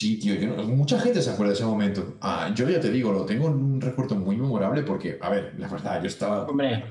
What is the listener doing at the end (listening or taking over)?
listening